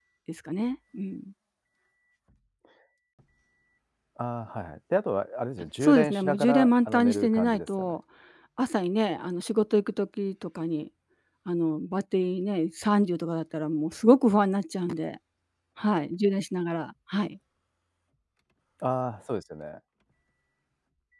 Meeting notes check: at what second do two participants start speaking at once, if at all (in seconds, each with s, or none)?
5.8 s